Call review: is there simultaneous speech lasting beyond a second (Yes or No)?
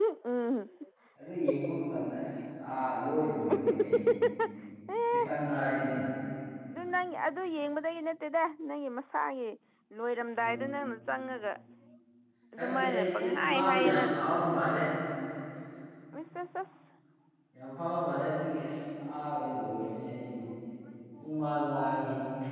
Yes